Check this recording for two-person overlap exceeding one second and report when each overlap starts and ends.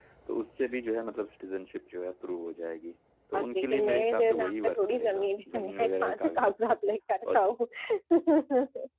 3.3-6.5

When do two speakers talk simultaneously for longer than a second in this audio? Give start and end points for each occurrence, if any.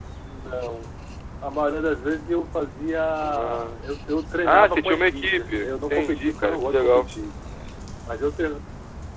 4.4-7.1

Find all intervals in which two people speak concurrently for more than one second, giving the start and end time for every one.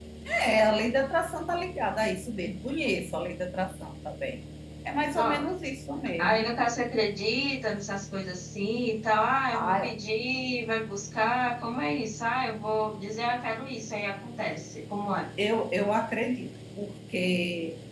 none

